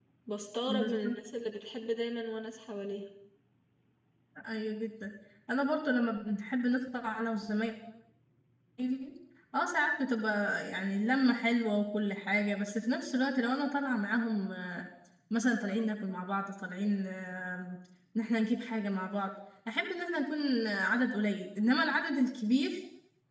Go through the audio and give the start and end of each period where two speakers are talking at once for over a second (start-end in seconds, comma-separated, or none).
none